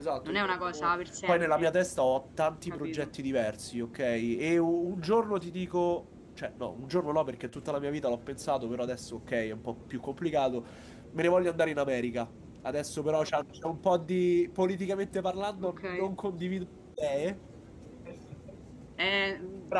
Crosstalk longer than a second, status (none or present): none